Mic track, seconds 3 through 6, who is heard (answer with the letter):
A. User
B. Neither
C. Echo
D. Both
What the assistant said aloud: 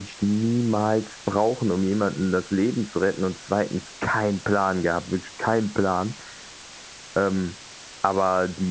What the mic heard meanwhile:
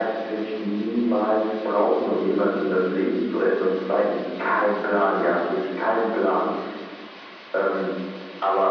C